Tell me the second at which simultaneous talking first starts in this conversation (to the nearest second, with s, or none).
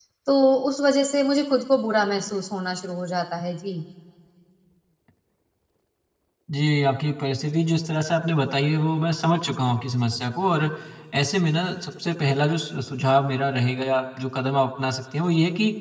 none